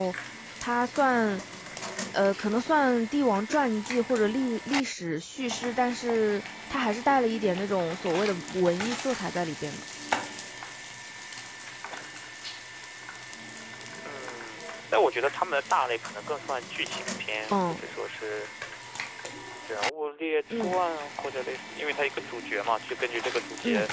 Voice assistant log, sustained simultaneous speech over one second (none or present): none